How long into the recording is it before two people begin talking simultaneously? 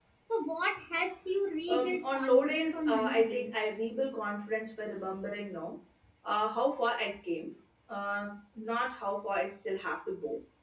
1.7 s

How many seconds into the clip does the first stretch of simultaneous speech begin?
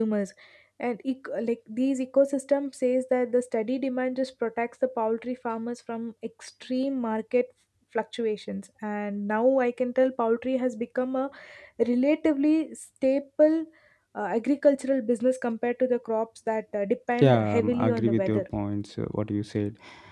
17.2 s

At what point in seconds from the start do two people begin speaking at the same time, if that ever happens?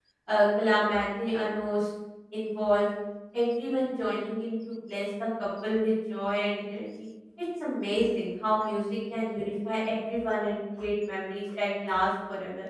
none

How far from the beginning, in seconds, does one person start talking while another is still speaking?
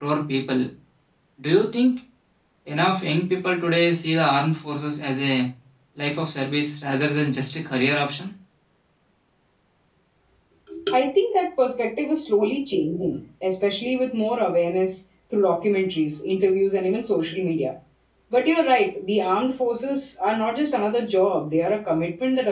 none

